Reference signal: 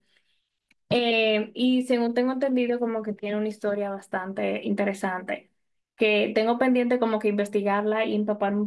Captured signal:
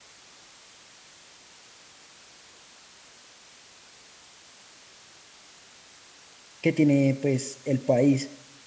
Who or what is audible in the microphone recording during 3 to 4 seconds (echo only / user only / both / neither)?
neither